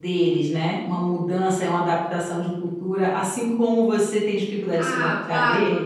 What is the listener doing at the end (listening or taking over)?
taking over